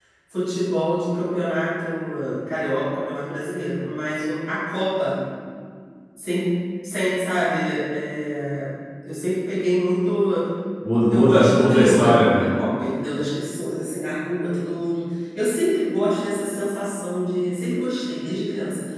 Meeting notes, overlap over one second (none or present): present